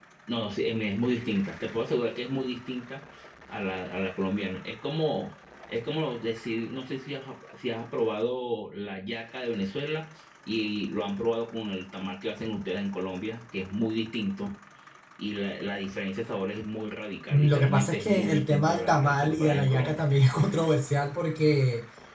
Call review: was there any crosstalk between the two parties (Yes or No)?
Yes